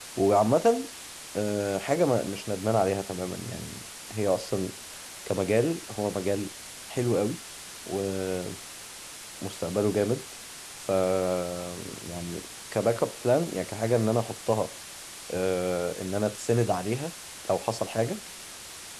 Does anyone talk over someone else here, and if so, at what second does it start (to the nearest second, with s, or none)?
none